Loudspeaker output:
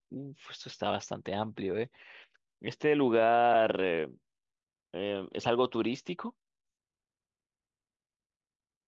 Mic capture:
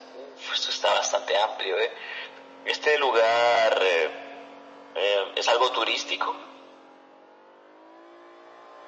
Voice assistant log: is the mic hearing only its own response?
Yes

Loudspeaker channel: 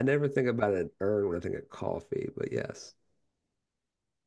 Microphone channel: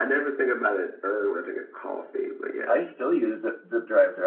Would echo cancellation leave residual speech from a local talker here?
Yes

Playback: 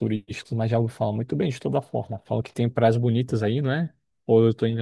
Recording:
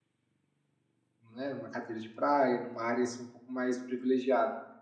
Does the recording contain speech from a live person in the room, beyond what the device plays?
Yes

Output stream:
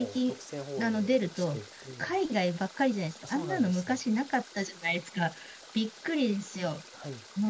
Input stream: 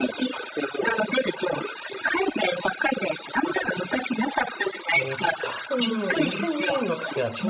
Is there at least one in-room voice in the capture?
Yes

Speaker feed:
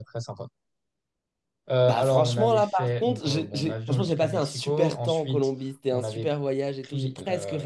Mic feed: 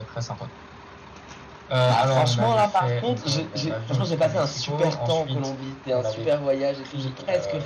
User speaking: No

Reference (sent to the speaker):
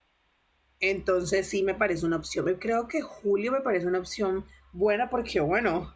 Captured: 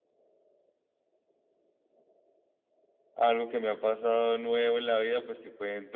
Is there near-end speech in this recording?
Yes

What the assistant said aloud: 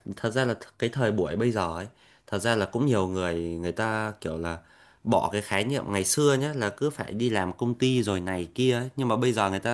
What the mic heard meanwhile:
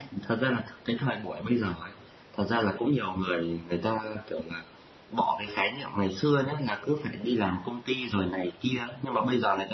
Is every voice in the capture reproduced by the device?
Yes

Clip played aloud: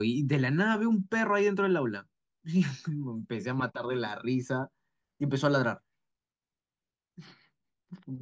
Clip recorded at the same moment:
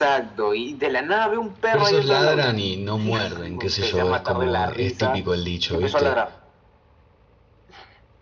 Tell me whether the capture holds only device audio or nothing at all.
No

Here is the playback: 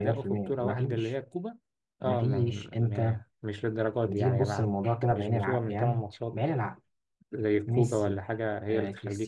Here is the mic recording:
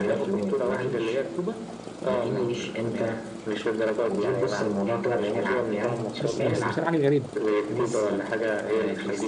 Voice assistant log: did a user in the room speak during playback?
Yes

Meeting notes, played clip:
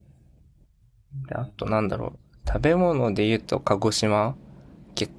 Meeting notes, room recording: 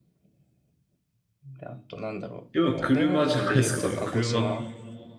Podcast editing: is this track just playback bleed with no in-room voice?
No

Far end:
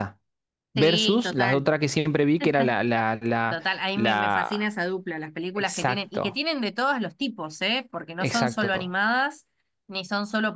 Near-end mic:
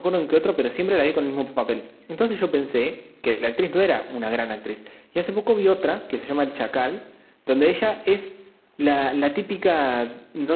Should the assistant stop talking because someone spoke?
Yes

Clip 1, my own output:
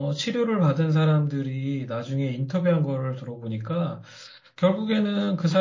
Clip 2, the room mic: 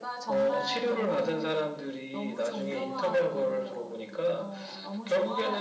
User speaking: Yes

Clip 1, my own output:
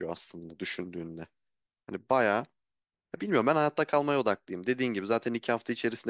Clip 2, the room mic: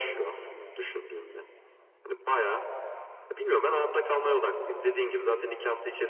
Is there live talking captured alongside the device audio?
No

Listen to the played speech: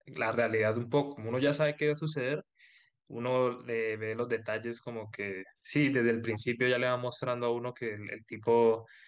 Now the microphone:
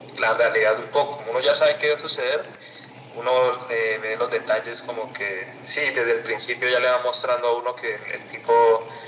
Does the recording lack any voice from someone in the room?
Yes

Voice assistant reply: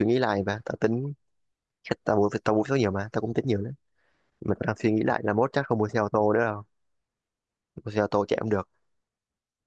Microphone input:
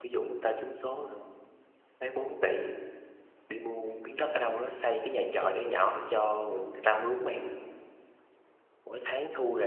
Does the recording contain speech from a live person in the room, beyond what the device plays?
Yes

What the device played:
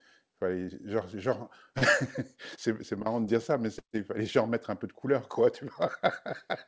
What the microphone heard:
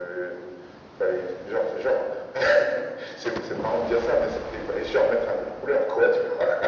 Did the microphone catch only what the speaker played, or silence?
Yes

